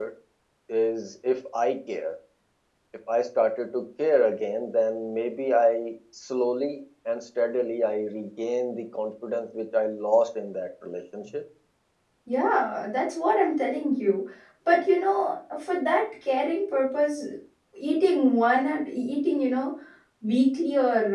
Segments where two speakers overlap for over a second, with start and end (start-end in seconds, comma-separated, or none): none